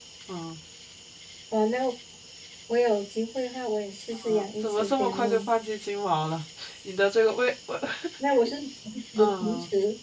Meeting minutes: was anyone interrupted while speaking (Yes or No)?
Yes